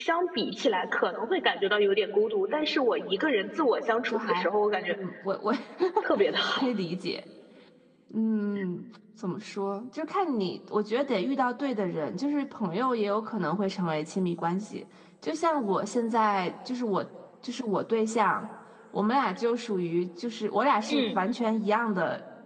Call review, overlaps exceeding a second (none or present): none